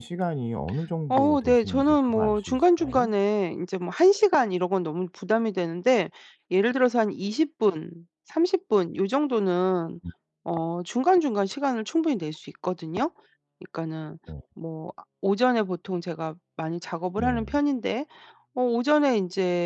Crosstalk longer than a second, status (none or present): present